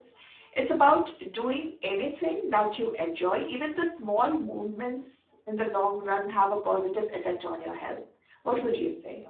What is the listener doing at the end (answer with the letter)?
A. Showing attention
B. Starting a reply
B